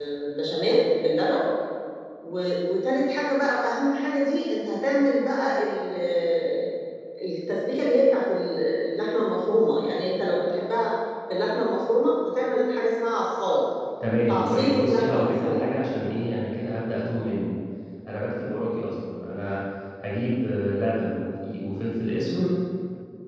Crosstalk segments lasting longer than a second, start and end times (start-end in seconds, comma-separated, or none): 14.3-15.7